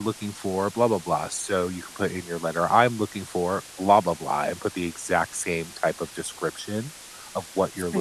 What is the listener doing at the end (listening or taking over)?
taking over